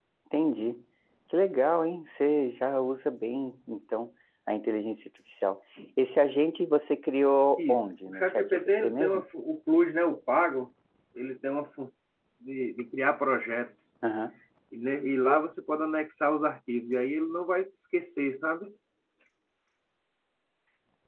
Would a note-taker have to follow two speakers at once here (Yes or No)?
Yes